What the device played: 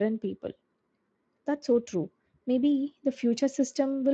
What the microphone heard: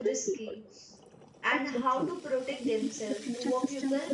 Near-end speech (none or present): present